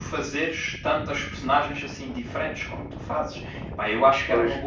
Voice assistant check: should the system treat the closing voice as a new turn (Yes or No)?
No